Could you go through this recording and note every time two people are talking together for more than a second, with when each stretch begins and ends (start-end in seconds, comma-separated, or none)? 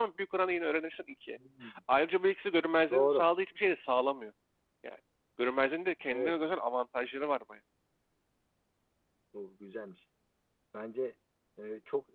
none